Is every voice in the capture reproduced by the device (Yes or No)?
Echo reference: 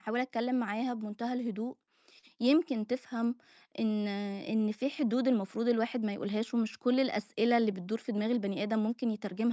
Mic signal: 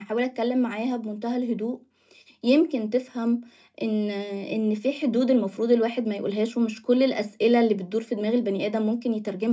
Yes